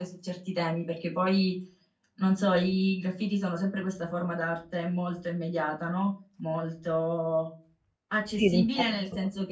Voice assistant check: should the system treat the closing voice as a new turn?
No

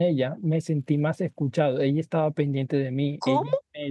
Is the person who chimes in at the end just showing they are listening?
Yes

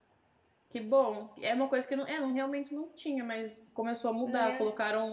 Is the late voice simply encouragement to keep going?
Yes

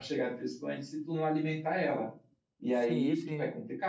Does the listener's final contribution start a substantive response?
No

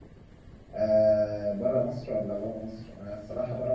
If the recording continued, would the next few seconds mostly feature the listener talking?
No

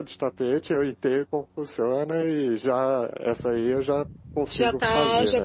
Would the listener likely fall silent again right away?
No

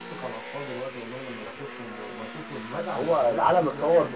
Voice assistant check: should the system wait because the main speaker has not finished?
No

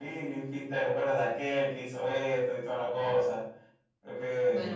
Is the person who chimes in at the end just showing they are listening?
No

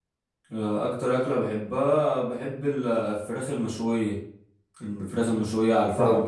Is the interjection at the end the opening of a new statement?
No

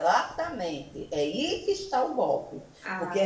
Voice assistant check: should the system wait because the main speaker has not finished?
Yes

